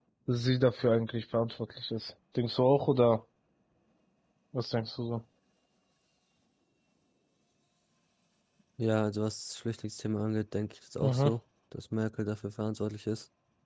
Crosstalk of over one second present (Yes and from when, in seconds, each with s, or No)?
No